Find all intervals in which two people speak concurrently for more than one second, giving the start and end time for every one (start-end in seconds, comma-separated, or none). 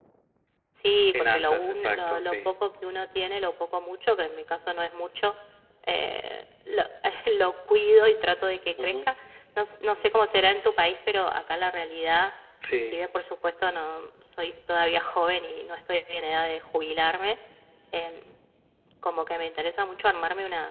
1.1-2.5